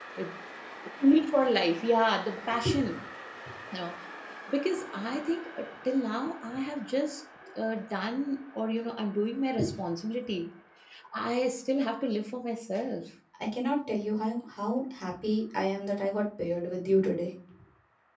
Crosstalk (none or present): none